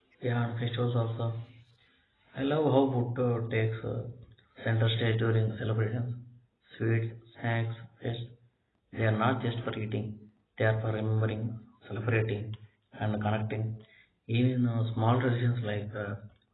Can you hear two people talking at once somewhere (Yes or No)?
No